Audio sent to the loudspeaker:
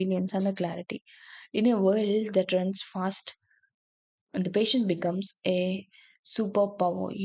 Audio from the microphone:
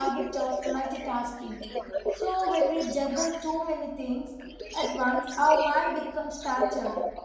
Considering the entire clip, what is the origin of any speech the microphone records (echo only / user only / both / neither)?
both